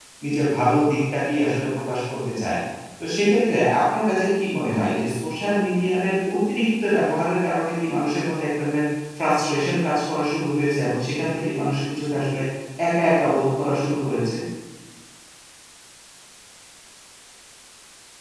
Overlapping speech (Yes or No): No